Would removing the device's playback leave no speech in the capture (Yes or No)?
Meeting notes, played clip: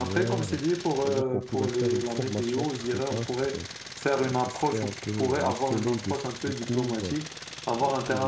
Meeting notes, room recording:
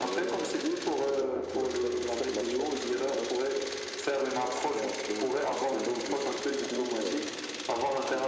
Yes